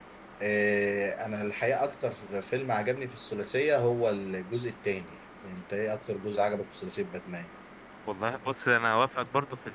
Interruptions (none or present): none